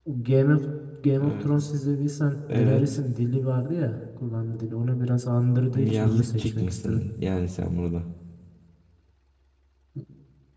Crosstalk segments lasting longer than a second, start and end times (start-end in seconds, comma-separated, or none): 5.7-7.0